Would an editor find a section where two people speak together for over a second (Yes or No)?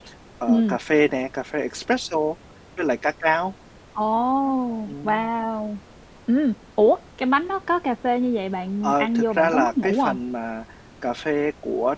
Yes